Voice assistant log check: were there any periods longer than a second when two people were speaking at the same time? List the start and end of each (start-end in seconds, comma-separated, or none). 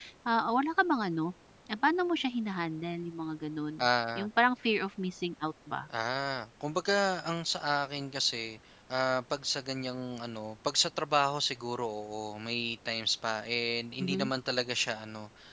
none